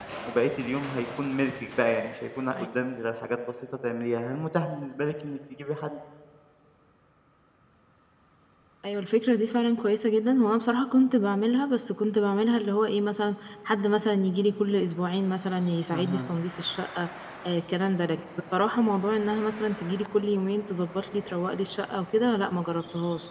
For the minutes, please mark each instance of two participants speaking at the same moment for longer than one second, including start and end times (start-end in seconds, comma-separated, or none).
none